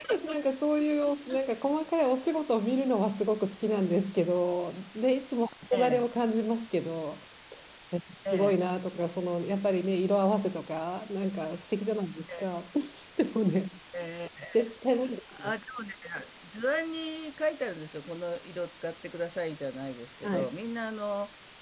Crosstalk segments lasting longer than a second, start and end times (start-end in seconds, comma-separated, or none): none